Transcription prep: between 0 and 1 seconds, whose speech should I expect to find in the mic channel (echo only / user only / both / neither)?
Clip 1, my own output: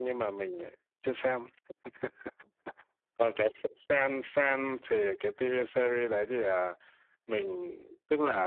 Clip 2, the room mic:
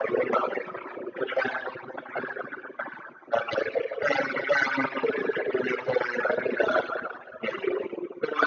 echo only